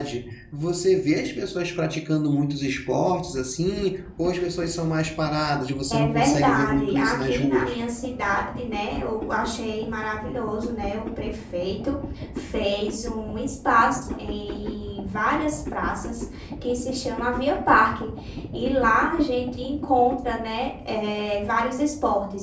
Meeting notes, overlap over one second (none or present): present